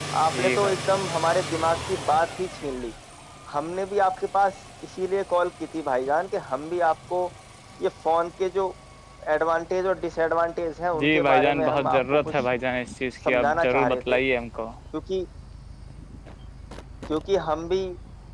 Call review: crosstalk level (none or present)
present